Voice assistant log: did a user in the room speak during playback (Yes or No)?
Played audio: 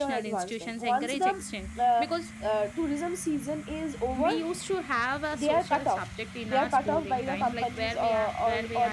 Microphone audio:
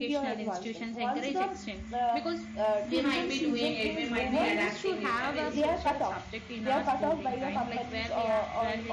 Yes